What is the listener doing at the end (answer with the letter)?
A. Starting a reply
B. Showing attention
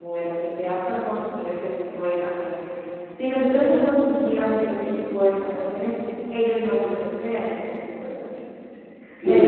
B